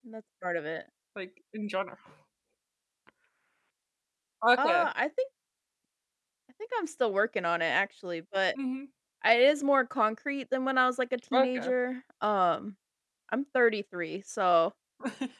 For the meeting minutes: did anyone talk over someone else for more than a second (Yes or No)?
No